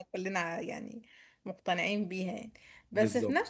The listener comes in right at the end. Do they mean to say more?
No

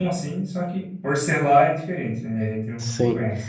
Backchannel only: No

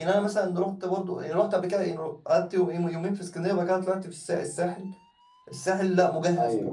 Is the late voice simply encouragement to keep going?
Yes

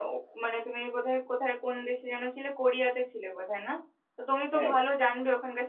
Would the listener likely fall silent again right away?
Yes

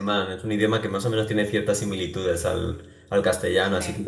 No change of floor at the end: Yes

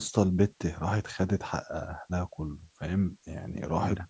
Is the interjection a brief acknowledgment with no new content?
Yes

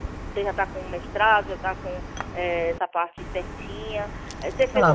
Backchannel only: No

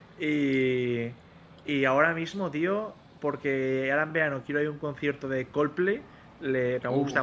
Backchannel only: Yes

